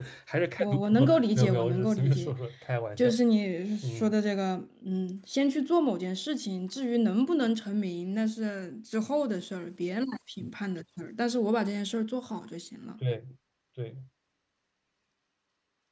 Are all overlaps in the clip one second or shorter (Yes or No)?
No